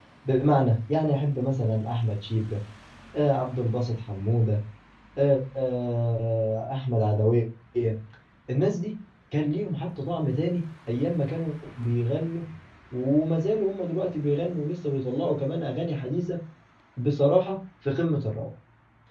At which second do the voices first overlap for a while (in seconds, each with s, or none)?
none